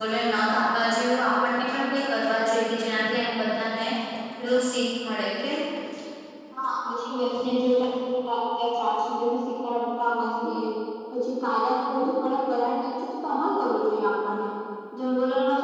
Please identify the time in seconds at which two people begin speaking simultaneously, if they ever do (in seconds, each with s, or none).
none